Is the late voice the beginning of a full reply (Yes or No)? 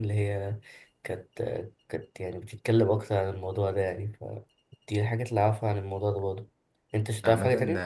Yes